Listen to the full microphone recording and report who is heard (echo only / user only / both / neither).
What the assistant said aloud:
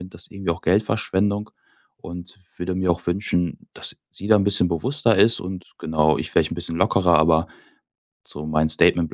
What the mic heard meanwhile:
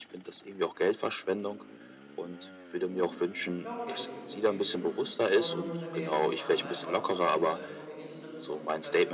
both